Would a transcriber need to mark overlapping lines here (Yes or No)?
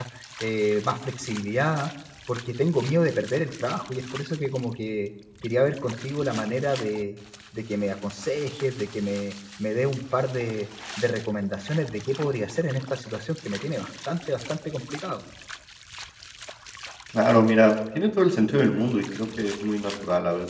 No